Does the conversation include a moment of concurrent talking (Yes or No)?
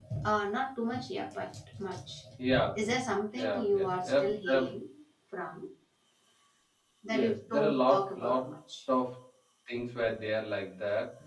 Yes